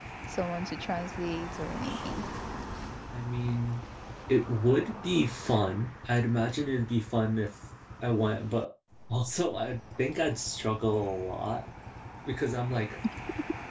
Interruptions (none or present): none